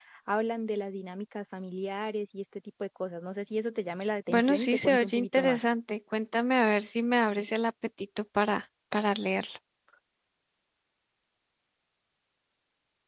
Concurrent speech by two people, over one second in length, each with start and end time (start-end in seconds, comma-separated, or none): 4.3-5.6